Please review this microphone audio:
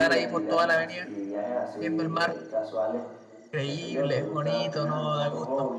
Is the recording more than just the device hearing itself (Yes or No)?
Yes